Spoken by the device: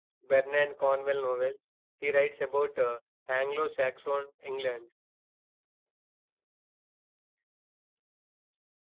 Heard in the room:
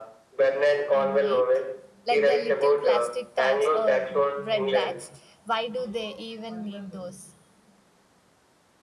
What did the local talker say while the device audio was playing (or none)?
I know it. Like the little plastic tabs or bread bags, why do they even need those?